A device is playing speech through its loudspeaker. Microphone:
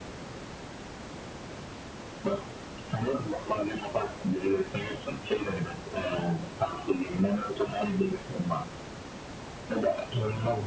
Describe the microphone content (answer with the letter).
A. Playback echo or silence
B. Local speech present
A